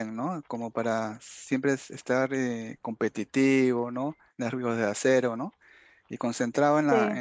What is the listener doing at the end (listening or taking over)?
listening